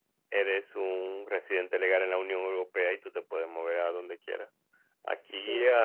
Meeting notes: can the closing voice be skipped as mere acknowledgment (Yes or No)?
Yes